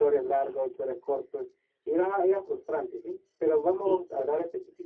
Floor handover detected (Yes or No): No